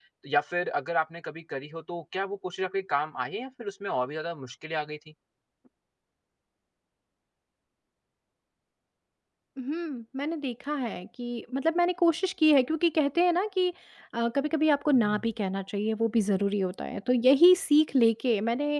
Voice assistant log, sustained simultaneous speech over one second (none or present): none